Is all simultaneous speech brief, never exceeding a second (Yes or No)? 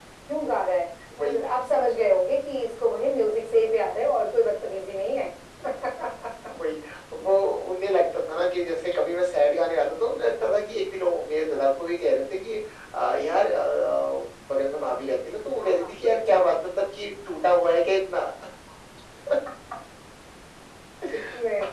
Yes